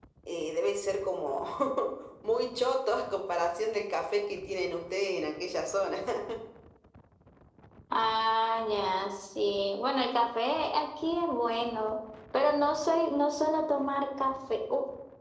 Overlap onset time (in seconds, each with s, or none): none